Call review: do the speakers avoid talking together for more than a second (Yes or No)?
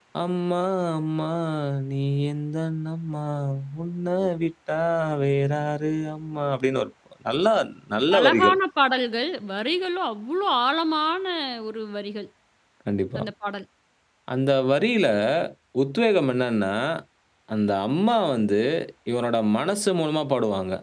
Yes